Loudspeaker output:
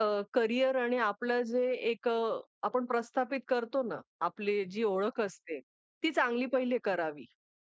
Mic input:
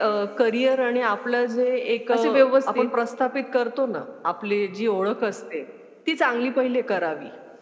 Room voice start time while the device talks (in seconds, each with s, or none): 2.1 s